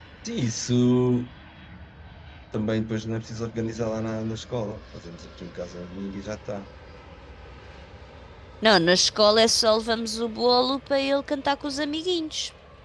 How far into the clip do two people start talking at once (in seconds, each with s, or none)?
none